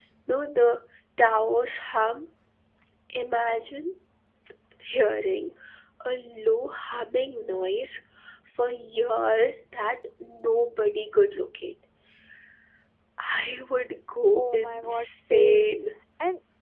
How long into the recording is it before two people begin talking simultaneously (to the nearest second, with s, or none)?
14 s